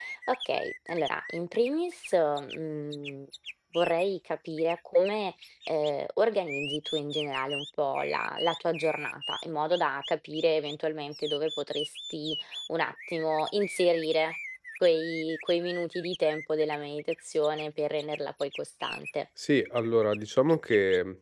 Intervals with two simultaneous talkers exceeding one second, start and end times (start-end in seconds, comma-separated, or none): none